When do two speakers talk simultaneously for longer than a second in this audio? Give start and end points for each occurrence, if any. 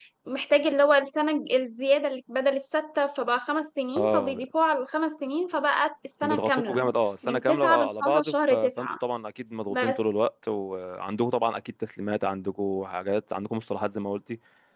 7.3-8.9

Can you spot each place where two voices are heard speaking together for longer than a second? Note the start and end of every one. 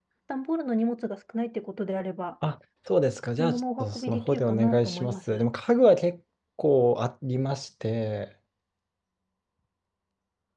3.4-5.4

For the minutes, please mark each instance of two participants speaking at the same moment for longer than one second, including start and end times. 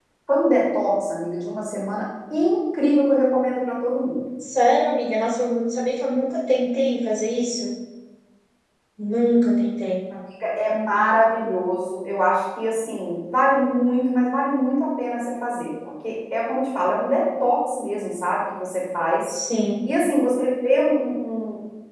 none

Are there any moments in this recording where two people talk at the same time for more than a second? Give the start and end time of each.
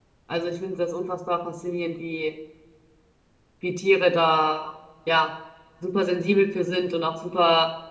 none

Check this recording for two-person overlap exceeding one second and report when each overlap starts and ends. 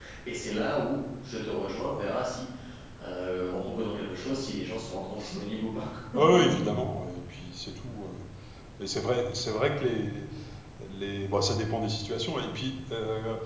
none

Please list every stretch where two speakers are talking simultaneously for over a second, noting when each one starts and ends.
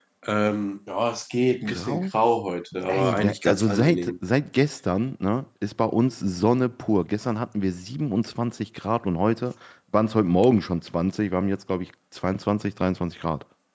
2.9-4.1

